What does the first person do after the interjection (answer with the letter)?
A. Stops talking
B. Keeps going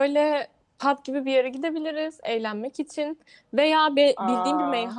B